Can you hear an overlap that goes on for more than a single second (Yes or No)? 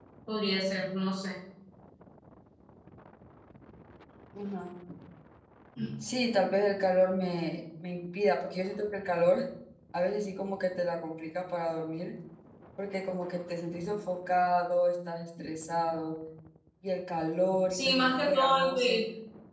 Yes